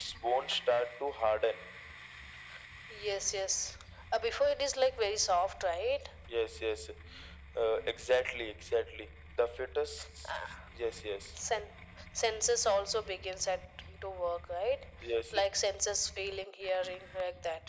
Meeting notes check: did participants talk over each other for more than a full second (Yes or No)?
No